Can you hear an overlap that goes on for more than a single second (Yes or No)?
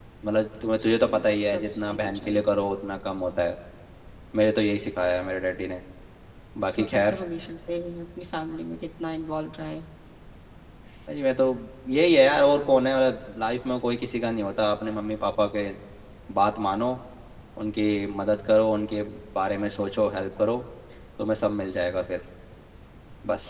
Yes